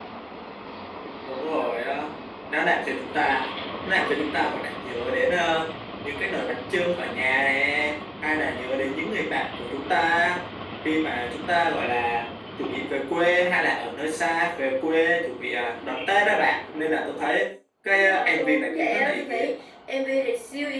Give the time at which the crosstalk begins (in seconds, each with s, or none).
17.9 s